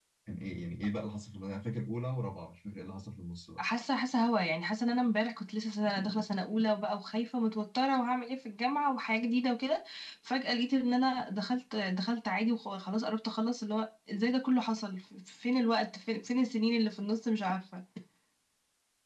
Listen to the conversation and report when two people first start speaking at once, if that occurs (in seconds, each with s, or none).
none